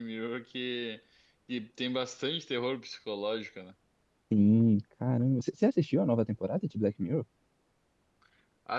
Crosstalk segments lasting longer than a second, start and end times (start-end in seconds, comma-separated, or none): none